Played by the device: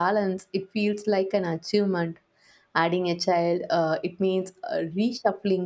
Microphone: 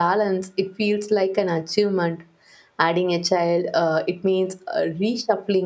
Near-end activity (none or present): none